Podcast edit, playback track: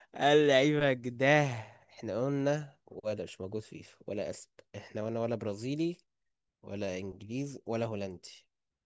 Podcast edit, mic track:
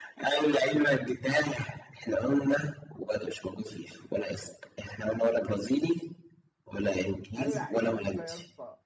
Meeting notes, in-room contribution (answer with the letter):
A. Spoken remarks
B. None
A